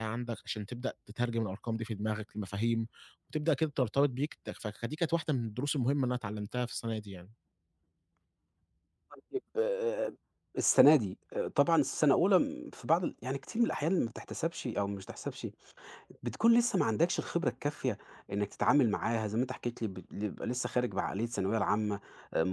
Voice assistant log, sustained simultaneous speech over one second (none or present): none